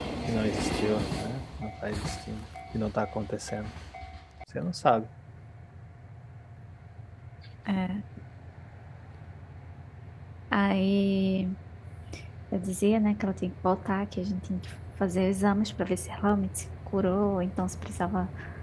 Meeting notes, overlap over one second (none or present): none